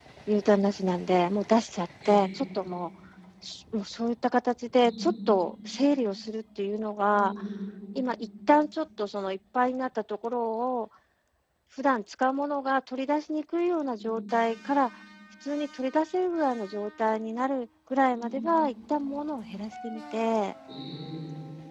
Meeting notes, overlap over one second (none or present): none